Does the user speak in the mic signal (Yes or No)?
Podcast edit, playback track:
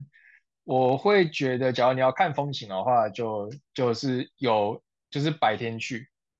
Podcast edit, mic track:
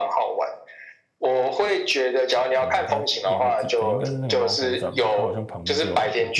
Yes